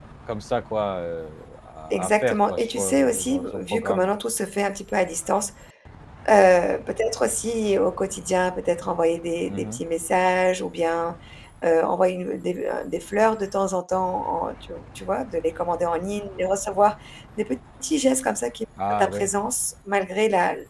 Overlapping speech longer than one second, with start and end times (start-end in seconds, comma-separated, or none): 1.9-4.1